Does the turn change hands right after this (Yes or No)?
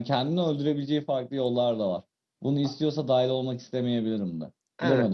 Yes